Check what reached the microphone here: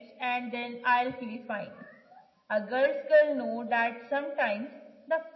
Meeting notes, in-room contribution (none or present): none